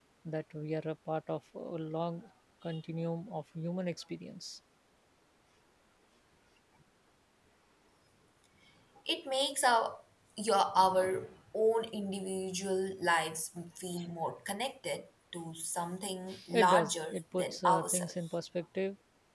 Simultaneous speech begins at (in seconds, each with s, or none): 16.5 s